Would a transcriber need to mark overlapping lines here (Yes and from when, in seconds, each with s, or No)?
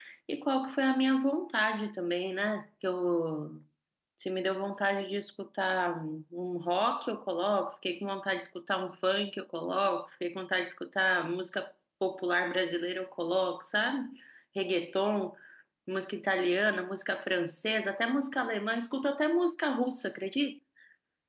No